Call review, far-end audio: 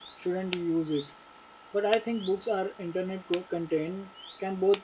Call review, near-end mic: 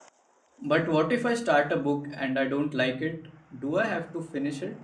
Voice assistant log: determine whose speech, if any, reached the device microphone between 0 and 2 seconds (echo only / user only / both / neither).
user only